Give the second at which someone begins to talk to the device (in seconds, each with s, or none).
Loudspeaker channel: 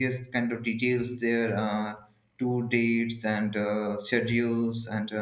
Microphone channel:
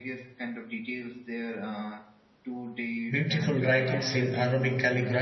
3.2 s